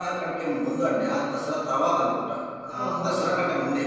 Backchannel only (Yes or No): Yes